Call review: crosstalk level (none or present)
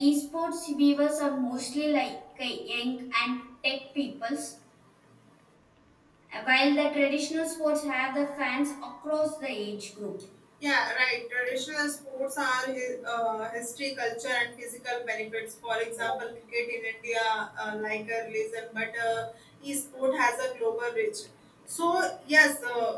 none